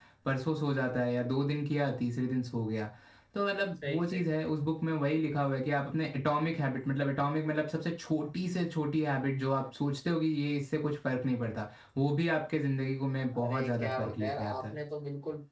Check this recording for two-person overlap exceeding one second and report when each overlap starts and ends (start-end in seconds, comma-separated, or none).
13.4-14.7